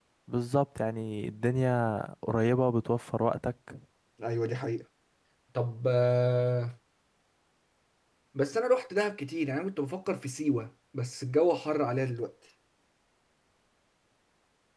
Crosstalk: none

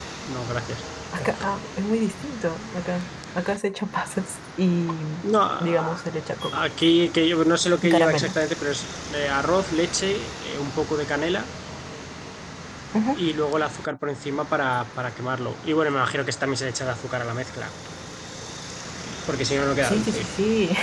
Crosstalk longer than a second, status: none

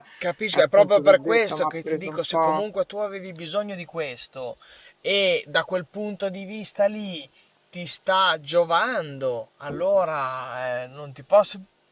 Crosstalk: present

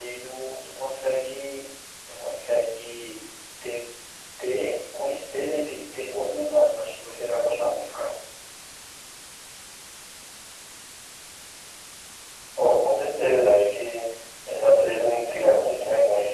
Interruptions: none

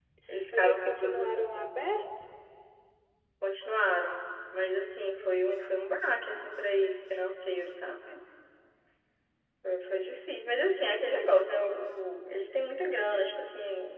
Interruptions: present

